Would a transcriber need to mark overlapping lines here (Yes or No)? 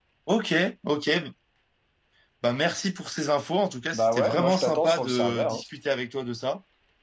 Yes